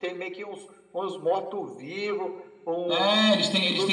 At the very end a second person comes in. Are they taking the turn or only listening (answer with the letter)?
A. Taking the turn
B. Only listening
A